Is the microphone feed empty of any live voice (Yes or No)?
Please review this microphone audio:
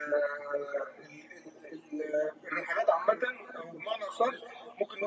Yes